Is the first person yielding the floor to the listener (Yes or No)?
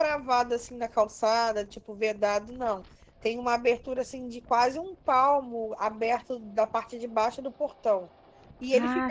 No